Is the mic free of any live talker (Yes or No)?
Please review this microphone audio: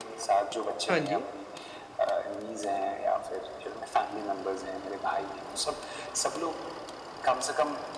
No